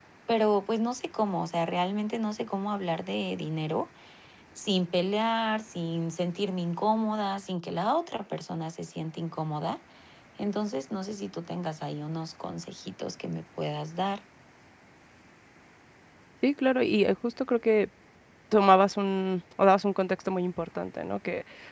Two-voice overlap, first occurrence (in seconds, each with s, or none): none